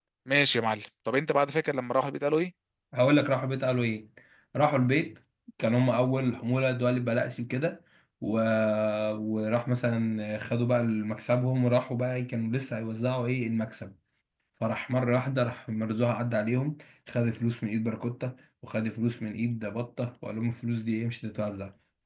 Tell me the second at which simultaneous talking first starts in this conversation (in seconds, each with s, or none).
none